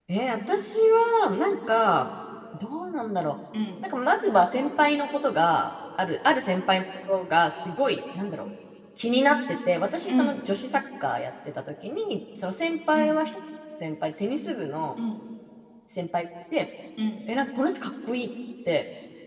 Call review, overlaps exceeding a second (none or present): none